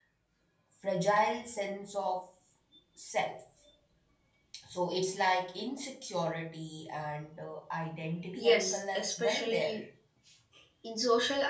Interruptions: present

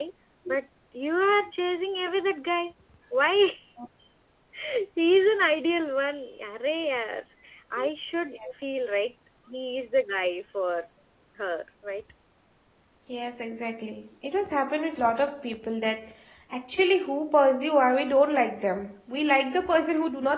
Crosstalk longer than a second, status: none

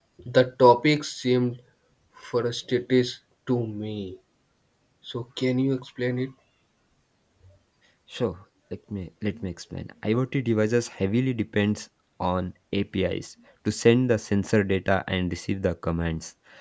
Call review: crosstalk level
none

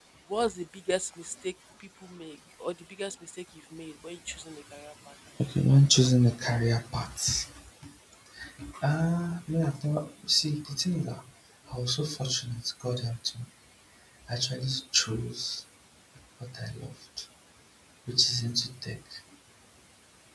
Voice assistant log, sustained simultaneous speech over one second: none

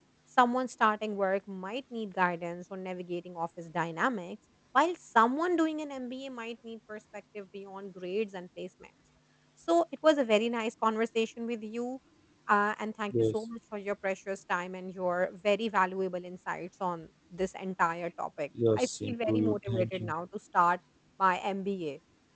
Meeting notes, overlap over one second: present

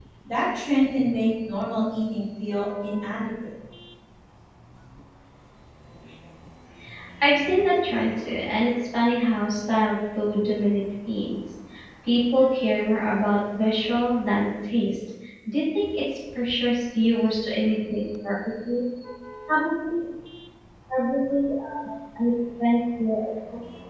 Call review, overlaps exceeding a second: none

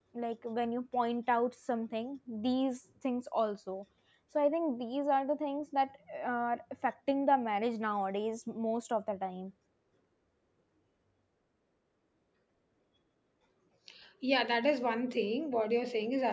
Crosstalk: none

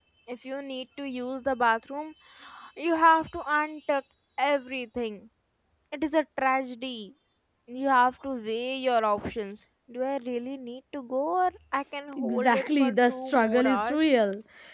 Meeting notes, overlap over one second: present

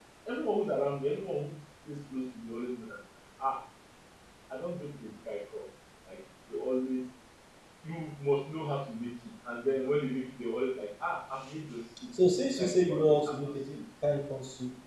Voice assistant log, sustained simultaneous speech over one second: present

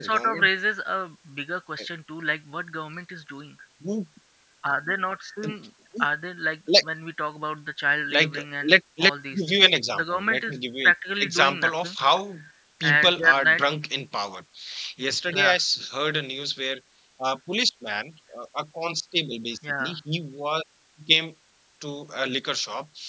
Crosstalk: present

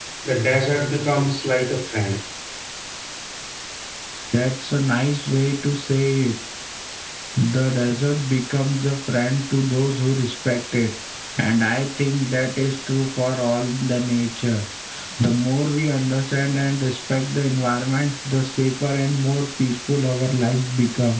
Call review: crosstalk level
none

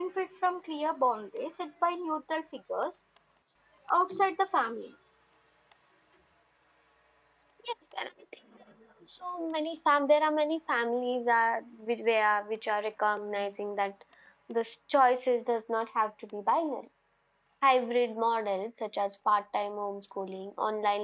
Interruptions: none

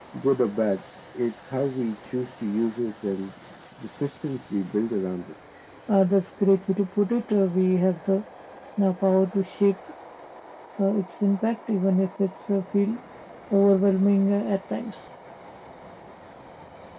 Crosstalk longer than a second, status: none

